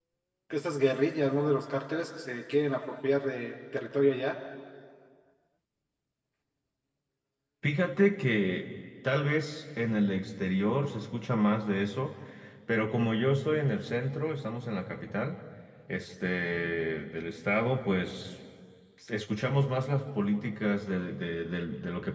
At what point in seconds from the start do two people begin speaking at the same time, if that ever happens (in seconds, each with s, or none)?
none